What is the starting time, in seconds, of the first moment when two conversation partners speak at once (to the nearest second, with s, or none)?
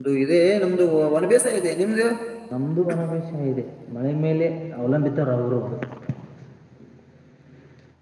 none